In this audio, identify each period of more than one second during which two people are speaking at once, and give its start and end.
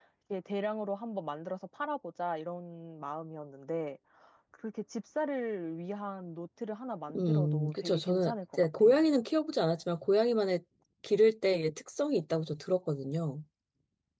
7.2-9.1

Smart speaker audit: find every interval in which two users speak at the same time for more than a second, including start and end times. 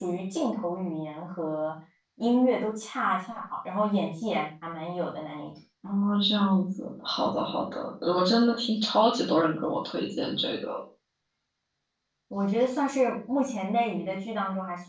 none

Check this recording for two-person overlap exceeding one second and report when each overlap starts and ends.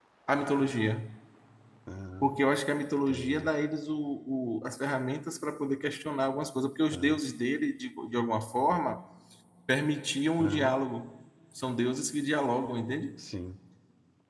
none

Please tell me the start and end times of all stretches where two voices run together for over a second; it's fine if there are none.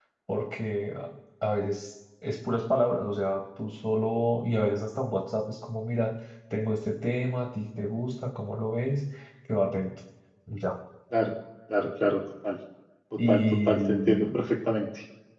13.3-14.5

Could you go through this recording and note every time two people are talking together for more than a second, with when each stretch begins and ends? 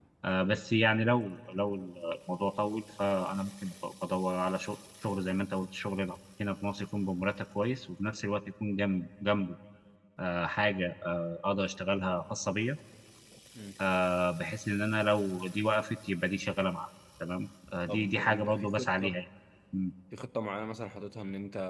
17.9-19.1

